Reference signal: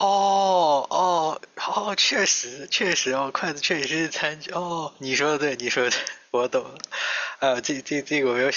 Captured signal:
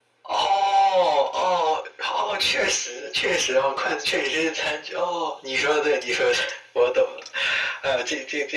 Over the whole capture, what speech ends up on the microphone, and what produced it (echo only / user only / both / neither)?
echo only